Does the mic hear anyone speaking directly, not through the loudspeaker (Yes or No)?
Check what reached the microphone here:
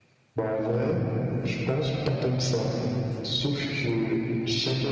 No